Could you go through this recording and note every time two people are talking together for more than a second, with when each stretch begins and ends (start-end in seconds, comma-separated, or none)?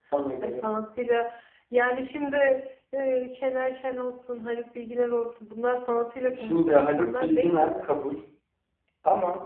6.4-7.9